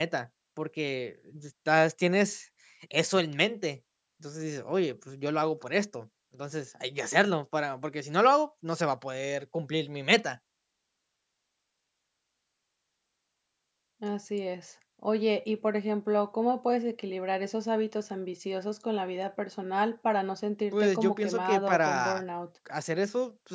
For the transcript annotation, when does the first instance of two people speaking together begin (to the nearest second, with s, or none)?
21 s